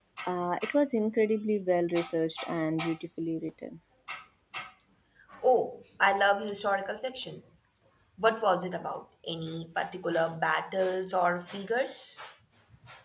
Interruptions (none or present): none